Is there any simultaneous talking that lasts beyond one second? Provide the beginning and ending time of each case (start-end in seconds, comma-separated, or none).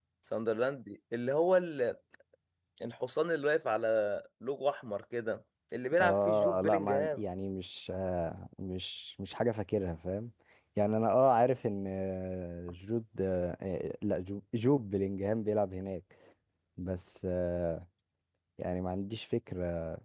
6.0-7.2